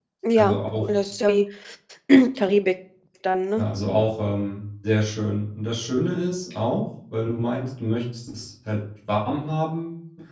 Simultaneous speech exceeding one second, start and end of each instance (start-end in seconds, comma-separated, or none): none